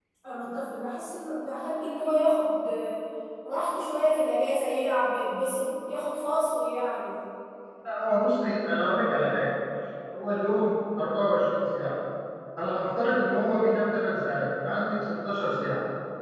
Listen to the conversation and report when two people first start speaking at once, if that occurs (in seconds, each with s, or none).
none